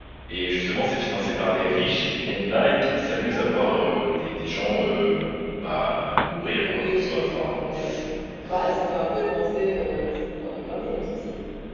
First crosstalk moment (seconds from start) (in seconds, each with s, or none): 6.6 s